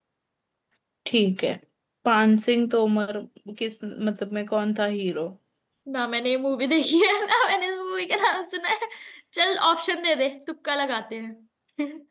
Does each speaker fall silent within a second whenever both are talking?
Yes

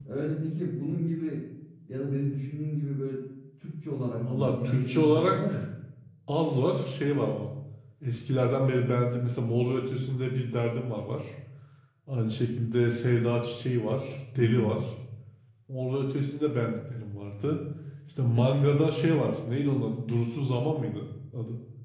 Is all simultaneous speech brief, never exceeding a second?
No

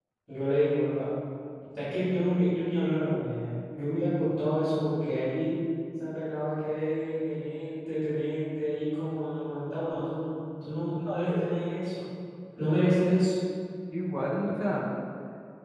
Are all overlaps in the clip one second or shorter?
Yes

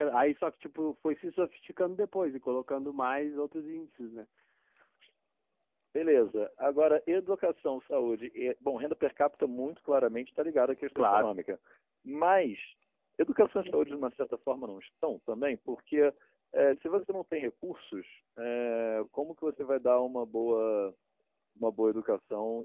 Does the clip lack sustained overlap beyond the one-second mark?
Yes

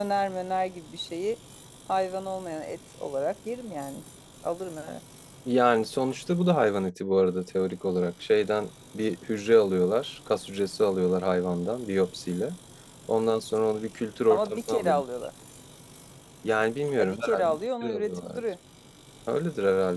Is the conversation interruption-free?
No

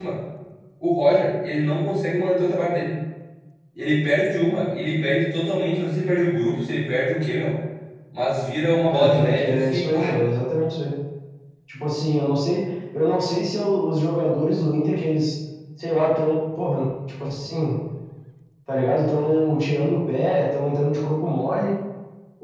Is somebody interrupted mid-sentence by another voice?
Yes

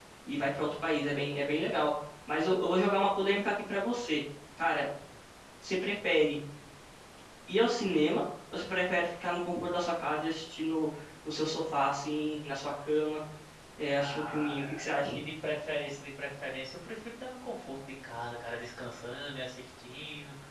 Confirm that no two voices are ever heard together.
No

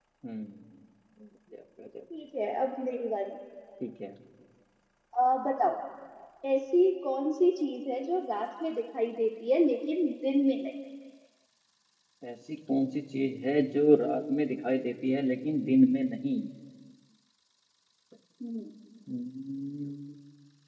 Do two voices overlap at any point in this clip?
No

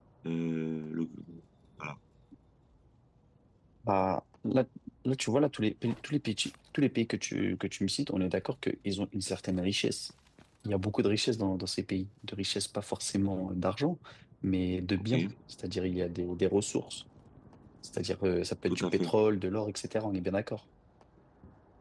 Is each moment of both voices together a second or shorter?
Yes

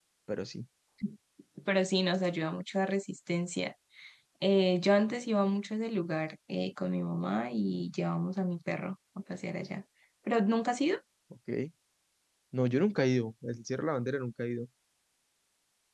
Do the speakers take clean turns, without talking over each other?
Yes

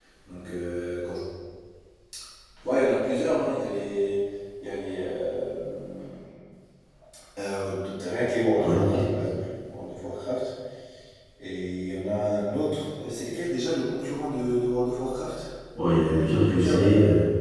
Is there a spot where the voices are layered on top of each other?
Yes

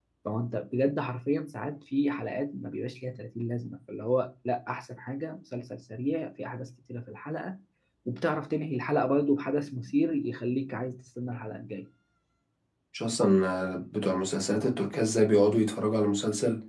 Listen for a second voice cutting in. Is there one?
No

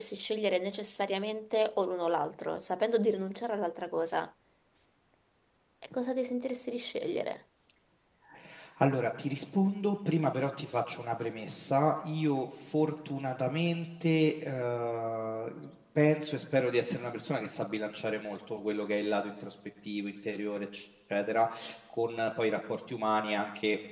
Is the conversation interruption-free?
Yes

